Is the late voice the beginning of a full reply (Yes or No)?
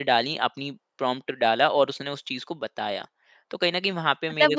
Yes